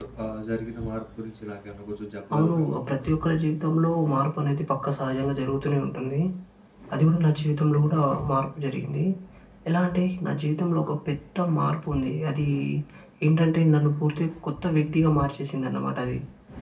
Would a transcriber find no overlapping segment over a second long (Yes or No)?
Yes